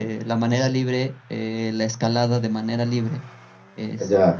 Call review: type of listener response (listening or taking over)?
taking over